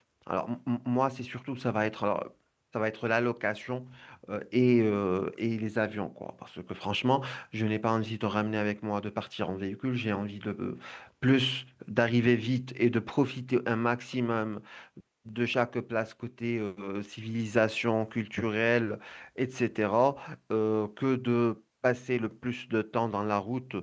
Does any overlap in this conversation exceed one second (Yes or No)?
No